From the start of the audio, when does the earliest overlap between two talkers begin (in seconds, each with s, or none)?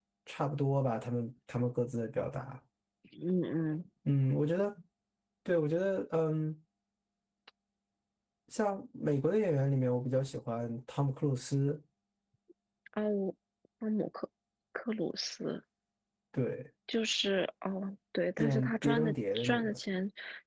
18.4 s